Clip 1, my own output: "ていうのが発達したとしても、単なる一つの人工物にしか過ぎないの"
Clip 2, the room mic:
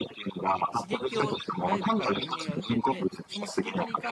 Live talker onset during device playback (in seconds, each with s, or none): 0.8 s